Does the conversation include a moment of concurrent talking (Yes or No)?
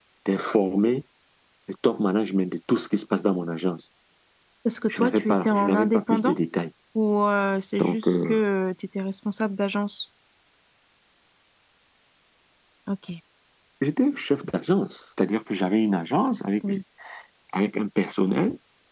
Yes